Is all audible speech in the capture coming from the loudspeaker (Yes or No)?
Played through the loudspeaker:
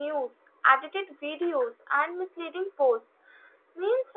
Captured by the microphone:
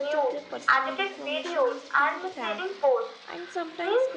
No